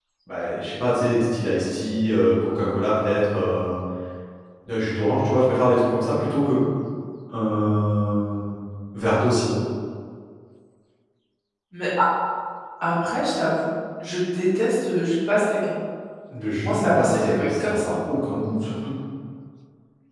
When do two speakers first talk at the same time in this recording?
16.6 s

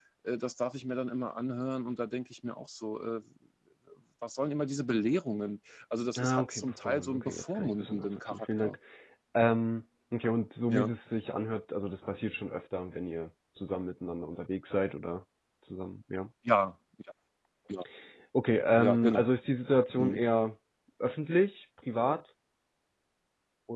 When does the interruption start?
6.2 s

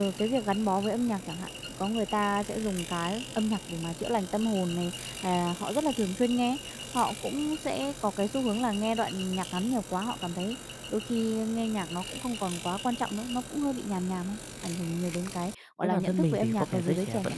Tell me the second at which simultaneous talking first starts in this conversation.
15.8 s

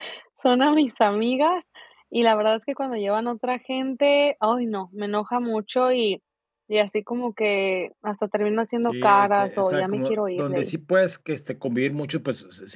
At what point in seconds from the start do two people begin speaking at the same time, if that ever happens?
8.9 s

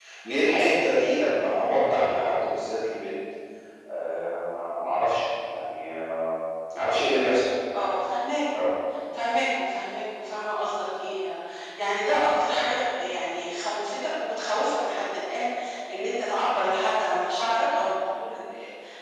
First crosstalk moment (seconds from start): none

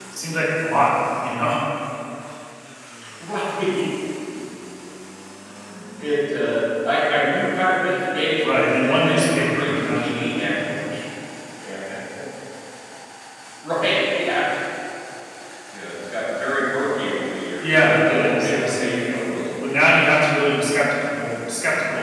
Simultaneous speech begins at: 8.4 s

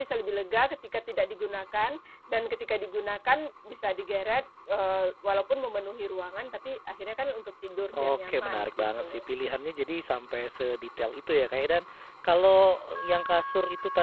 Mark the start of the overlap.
7.9 s

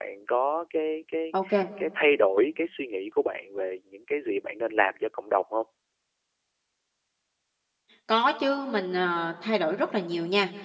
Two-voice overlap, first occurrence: none

